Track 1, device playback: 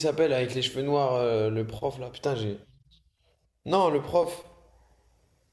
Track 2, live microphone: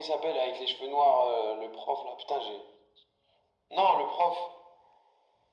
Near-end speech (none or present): none